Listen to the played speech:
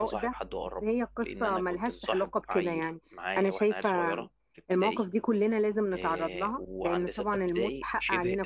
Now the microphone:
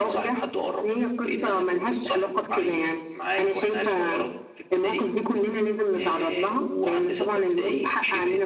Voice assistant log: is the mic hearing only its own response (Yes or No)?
Yes